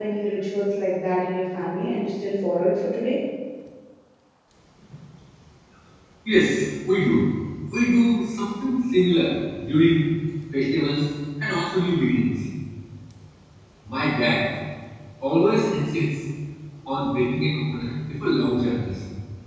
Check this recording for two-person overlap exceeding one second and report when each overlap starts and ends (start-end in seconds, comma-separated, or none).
none